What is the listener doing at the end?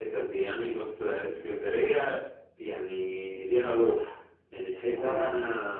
listening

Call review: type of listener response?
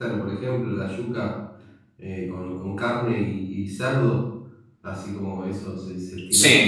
taking over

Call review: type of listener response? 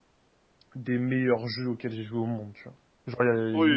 taking over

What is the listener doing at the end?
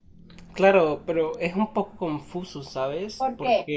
listening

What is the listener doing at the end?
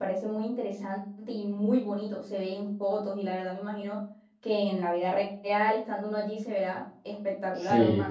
taking over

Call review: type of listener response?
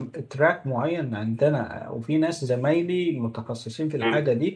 listening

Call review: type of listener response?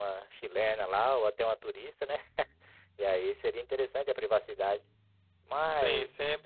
taking over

